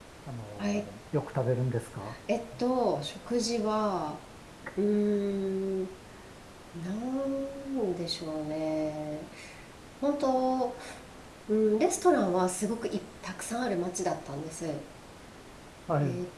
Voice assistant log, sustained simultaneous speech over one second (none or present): none